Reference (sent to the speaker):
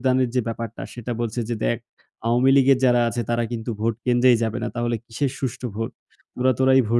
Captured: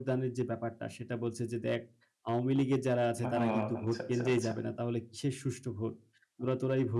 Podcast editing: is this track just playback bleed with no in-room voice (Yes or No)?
No